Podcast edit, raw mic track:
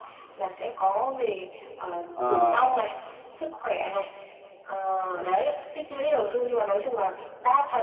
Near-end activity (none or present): present